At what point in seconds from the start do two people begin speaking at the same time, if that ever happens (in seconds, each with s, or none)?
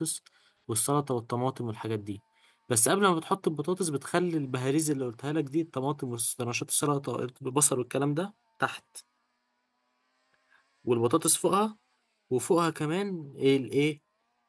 none